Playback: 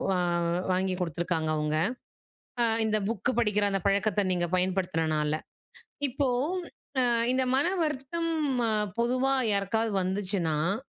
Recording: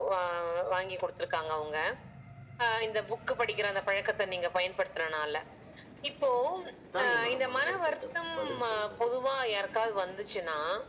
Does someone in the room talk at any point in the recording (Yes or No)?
Yes